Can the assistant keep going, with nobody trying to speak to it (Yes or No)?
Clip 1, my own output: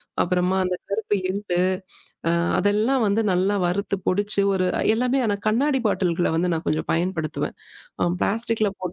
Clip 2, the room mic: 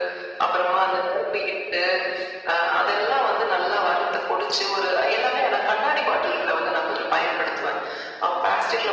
Yes